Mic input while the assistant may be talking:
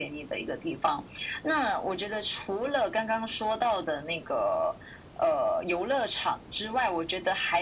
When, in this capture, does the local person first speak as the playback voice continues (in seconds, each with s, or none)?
none